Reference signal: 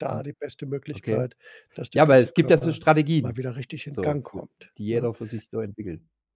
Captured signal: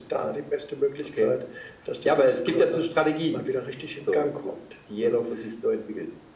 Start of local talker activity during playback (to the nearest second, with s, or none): none